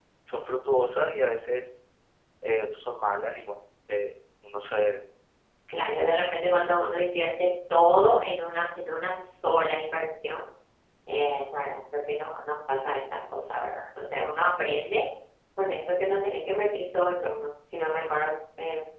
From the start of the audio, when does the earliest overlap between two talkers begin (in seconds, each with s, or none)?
none